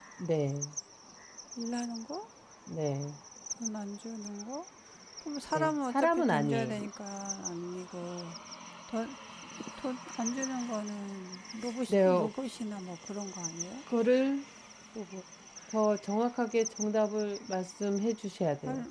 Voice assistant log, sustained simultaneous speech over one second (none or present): present